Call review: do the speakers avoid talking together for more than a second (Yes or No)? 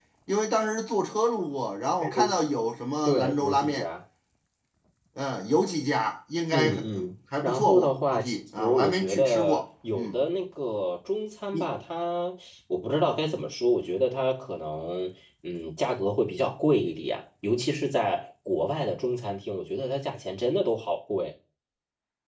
No